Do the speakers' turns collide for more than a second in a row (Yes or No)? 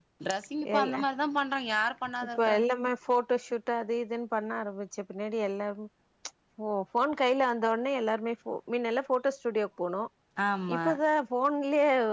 No